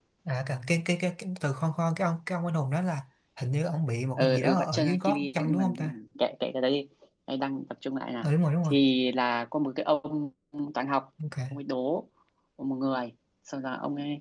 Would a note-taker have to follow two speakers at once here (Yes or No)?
Yes